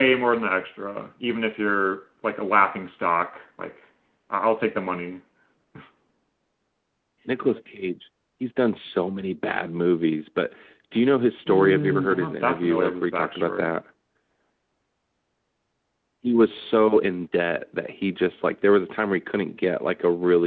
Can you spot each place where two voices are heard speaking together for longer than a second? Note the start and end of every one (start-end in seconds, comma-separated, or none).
11.5-13.8